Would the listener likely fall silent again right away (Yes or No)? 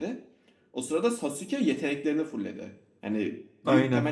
Yes